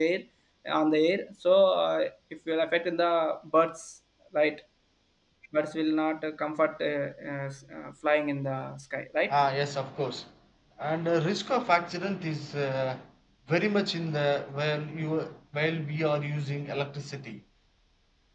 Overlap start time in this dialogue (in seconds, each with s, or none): none